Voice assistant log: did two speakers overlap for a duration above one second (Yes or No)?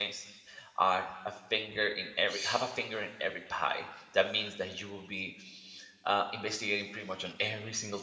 No